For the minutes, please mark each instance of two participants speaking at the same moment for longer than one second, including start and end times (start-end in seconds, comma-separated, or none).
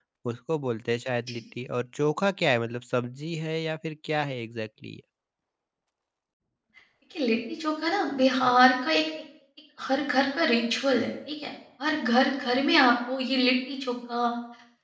none